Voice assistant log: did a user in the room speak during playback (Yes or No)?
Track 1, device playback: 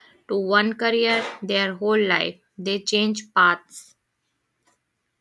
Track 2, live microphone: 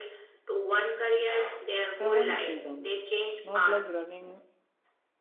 Yes